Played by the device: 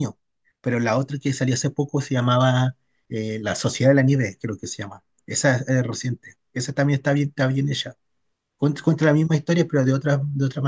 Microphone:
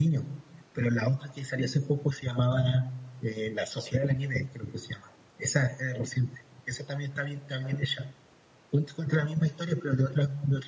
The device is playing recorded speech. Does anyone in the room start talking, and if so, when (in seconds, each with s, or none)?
none